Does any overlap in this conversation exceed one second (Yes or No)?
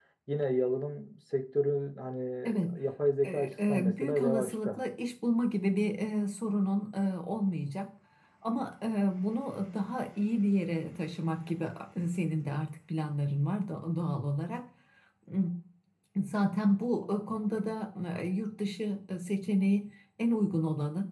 Yes